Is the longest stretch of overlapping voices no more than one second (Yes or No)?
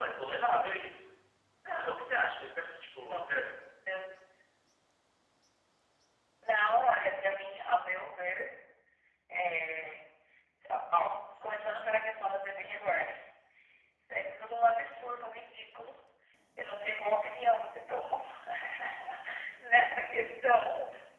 Yes